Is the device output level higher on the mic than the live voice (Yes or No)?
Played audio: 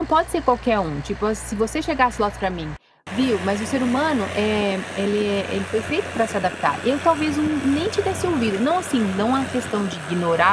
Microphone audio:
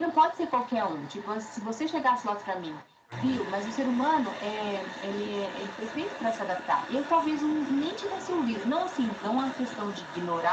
Yes